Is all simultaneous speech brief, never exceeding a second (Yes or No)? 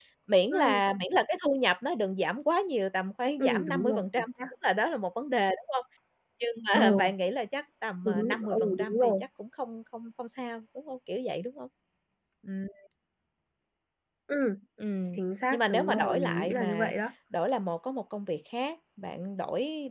No